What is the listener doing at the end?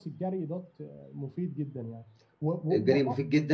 taking over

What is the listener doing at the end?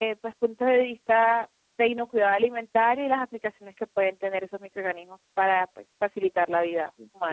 taking over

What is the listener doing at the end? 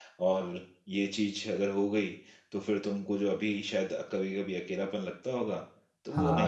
taking over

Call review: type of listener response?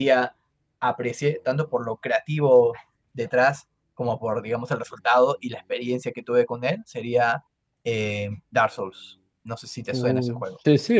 taking over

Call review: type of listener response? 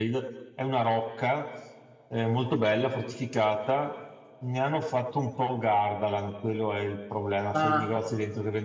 listening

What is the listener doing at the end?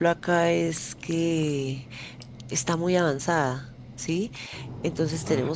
listening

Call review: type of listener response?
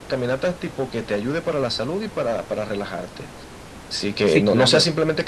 listening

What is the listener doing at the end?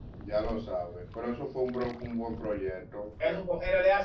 taking over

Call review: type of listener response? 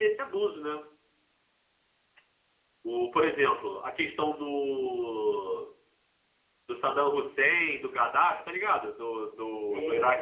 taking over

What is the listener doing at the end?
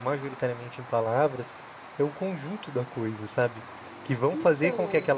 listening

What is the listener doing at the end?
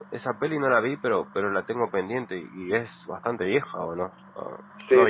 taking over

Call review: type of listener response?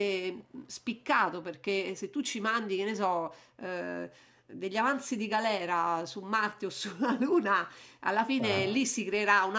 listening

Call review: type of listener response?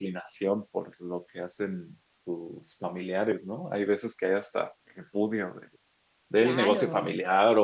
listening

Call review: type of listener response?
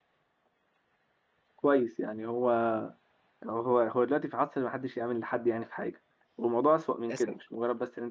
listening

